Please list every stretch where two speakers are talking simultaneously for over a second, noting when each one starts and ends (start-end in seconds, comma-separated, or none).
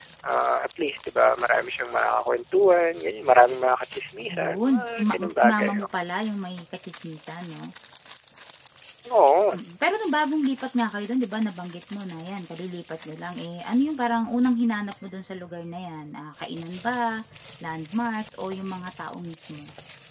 4.3-5.9